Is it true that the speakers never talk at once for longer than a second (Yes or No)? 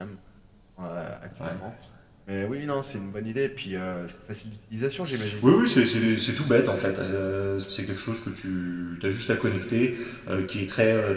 Yes